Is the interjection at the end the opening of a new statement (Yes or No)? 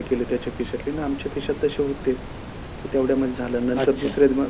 No